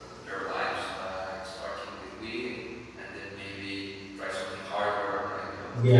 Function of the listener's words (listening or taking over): taking over